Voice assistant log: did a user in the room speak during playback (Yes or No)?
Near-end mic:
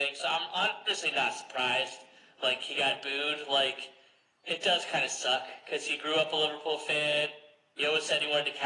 No